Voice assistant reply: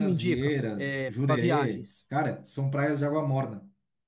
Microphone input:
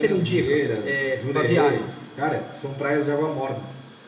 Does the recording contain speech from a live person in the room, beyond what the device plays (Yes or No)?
No